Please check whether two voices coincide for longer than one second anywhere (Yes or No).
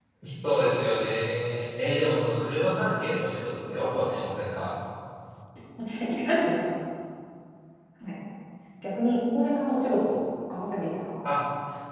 No